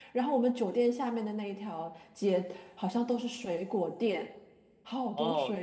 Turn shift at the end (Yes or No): Yes